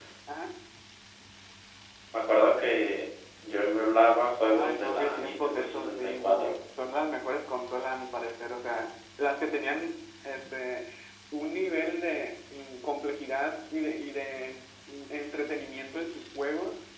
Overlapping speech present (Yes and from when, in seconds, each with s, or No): Yes, from 4.4 s